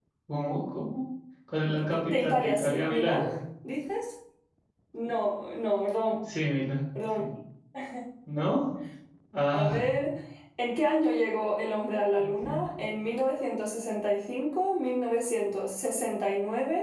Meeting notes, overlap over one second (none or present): present